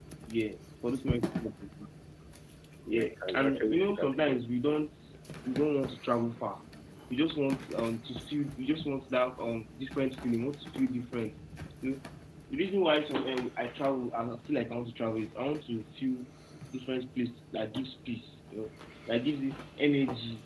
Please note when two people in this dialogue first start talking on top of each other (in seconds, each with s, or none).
2.9 s